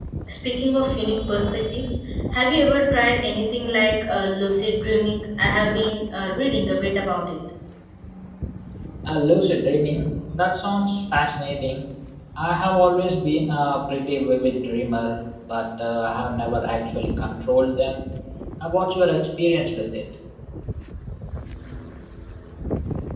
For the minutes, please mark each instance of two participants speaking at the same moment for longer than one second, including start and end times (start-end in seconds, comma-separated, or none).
none